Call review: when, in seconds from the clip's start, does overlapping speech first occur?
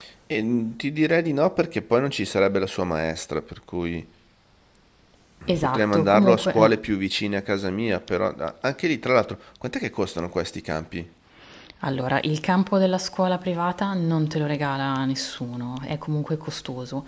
5.6 s

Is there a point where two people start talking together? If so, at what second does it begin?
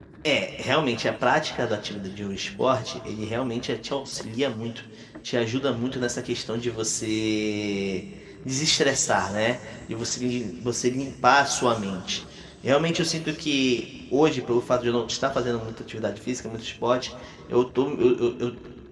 none

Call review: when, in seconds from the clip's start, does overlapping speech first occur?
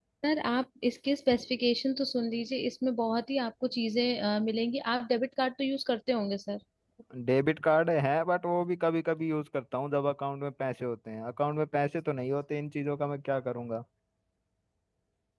none

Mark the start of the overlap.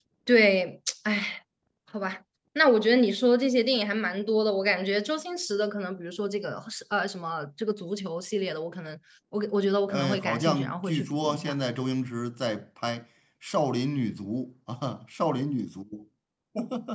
9.9 s

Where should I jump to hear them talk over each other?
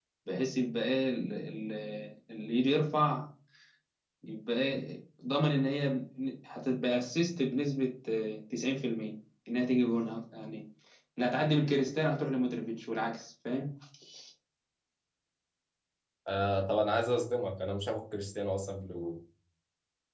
none

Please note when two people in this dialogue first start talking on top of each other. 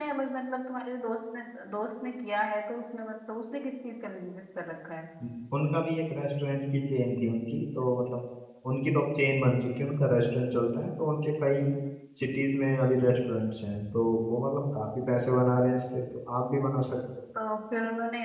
none

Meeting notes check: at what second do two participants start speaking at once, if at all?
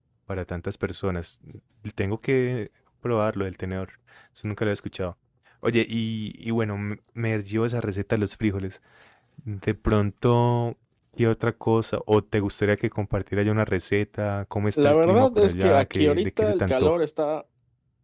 14.8 s

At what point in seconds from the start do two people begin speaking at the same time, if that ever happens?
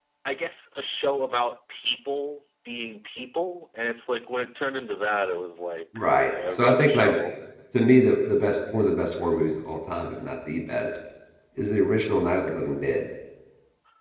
5.9 s

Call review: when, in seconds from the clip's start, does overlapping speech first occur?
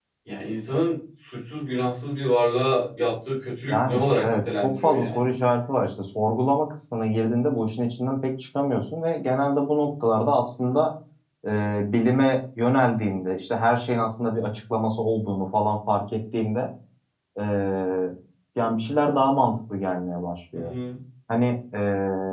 3.7 s

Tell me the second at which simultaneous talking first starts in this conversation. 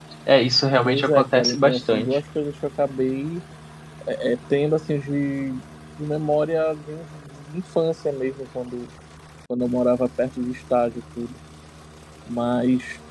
0.8 s

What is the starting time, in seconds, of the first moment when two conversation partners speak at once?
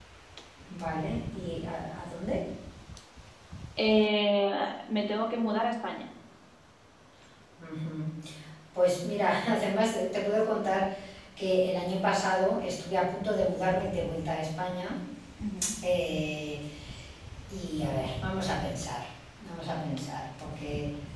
none

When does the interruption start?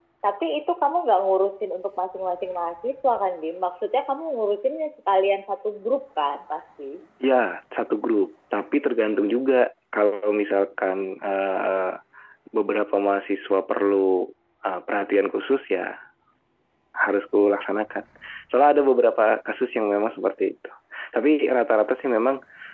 none

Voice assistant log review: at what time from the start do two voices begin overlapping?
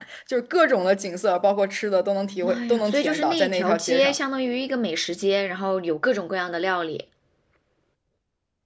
2.4 s

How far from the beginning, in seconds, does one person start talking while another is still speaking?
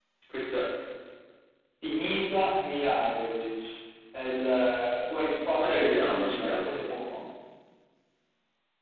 5.6 s

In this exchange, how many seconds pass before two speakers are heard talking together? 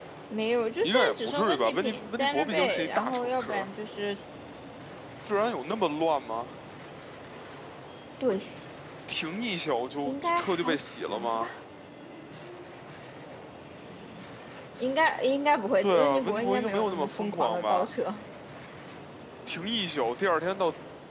0.8 s

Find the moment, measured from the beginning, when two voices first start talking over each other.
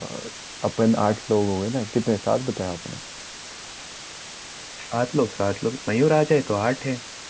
none

